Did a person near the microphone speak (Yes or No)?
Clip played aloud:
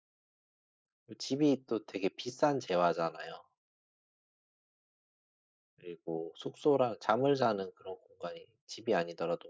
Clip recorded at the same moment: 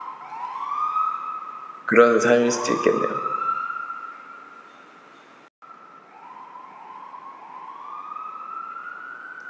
Yes